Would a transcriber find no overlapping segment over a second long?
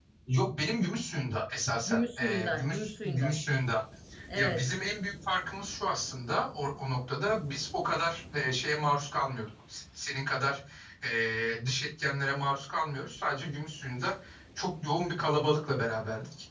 No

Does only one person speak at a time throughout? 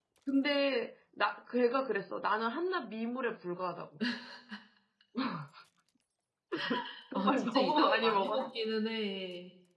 No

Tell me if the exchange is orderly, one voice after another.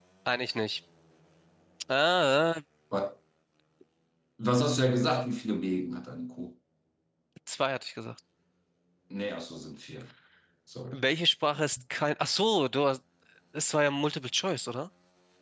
Yes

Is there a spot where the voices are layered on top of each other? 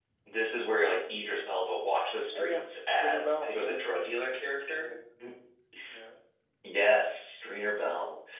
Yes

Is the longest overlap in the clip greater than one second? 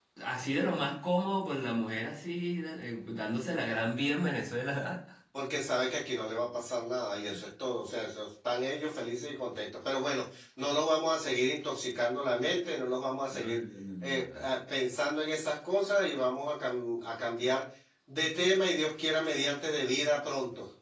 No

